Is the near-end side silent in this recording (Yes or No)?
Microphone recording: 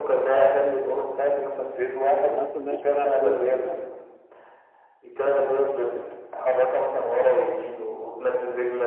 No